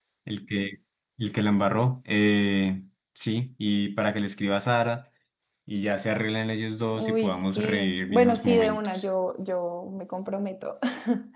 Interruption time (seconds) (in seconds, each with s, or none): 7.0 s